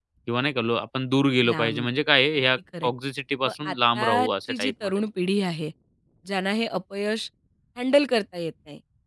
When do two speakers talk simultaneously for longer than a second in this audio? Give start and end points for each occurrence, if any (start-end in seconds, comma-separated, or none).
3.5-5.0